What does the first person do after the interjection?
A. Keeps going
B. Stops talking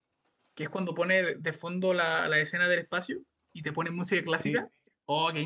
A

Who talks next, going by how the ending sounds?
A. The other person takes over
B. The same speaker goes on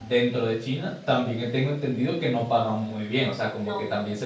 B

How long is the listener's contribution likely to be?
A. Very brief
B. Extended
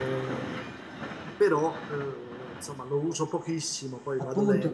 B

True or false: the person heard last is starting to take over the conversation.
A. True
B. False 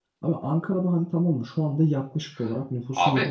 B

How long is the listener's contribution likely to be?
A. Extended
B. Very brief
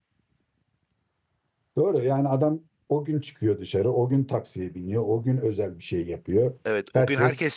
A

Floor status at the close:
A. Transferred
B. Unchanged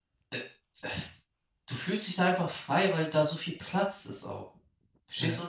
A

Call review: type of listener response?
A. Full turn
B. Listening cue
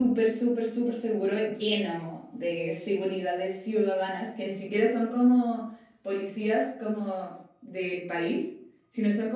B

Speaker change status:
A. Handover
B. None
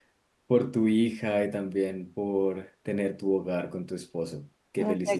A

